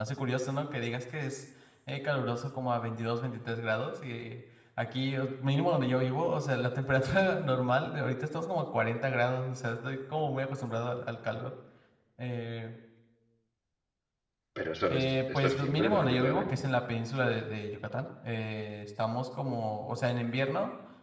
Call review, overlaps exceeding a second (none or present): present